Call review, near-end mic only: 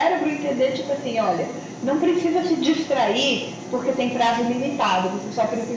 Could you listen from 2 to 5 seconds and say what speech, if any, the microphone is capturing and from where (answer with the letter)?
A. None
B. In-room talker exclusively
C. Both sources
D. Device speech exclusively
D